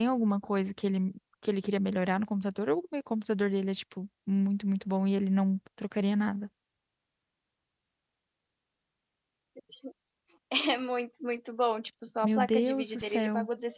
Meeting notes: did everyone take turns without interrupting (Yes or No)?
No